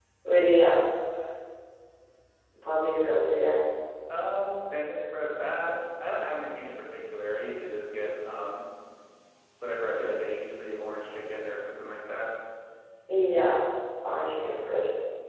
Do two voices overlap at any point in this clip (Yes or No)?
No